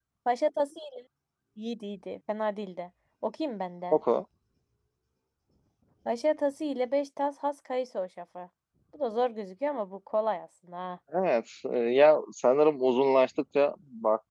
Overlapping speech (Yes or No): No